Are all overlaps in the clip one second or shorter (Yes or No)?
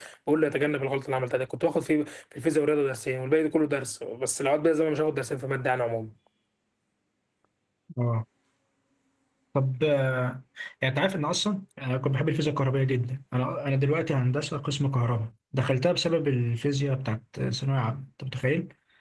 Yes